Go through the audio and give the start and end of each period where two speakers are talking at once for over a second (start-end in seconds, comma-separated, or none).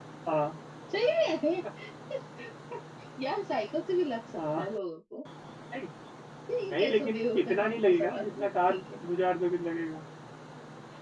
6.7-8.8